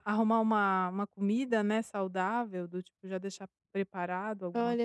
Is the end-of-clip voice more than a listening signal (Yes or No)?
Yes